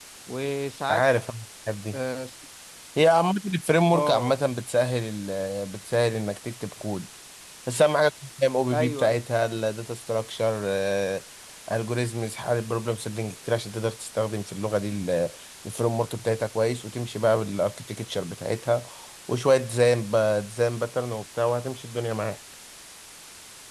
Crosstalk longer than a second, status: none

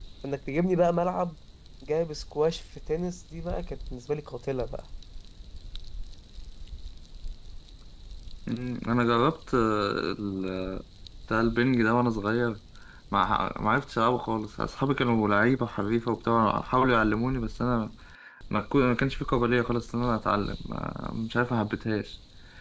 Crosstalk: none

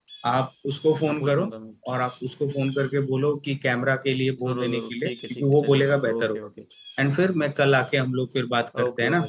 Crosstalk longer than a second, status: present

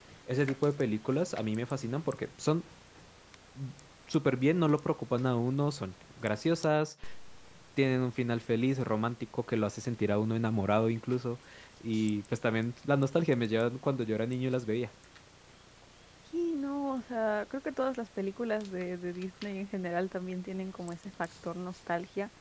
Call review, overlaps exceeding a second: none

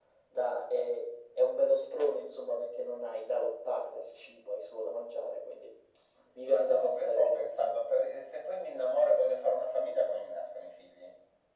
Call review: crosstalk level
present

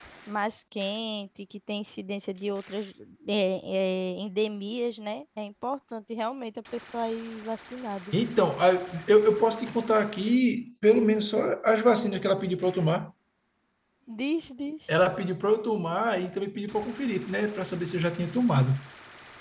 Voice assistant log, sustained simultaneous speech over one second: none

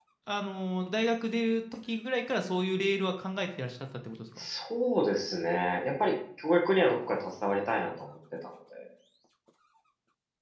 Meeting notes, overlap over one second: none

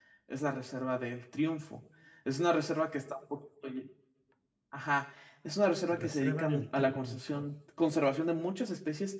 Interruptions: present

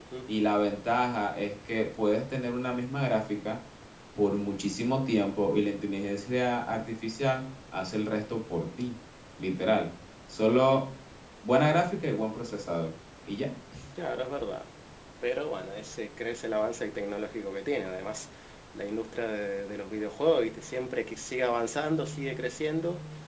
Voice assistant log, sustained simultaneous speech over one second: none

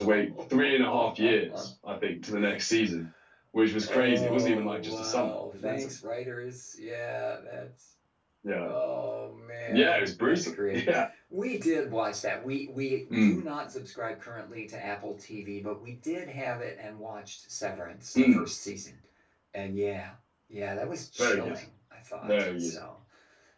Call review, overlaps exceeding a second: present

